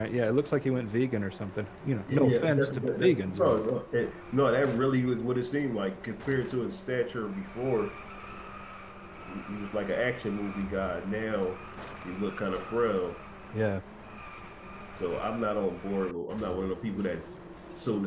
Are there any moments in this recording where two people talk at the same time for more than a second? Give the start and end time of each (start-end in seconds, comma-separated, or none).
2.1-3.6